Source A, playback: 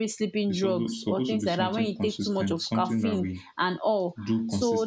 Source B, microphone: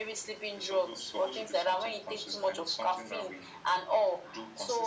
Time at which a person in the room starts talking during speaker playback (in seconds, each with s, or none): none